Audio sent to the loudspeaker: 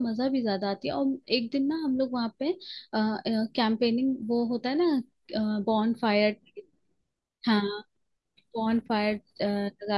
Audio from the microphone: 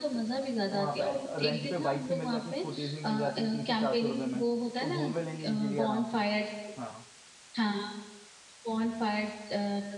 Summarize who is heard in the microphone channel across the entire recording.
both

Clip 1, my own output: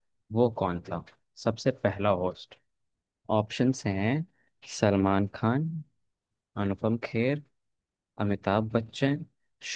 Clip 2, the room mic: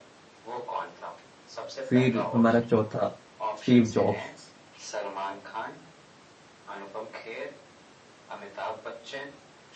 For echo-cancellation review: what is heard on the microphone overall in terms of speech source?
both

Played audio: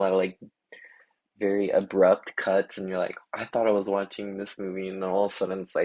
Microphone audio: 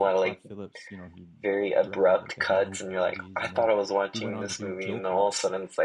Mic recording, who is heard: both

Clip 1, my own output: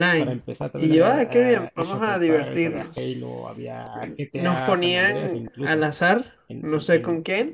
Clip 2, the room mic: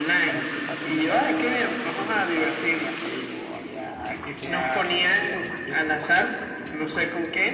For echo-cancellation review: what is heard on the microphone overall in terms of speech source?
echo only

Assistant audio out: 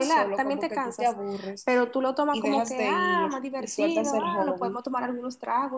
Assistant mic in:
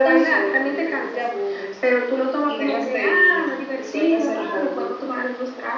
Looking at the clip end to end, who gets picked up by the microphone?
echo only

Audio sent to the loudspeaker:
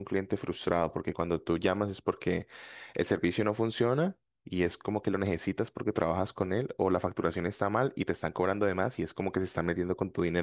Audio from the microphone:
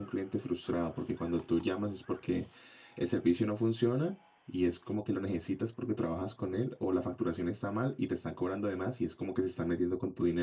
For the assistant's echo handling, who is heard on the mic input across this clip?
echo only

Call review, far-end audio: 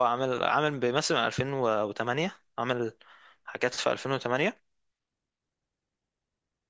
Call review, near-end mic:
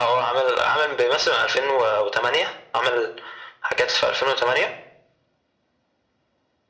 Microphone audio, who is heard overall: echo only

